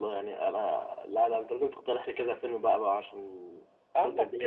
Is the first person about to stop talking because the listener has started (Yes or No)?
Yes